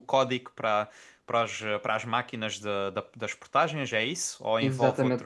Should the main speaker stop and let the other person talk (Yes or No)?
Yes